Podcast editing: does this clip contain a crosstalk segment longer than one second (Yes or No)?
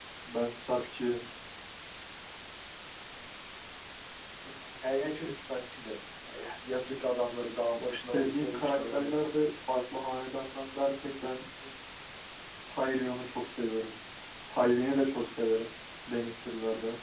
Yes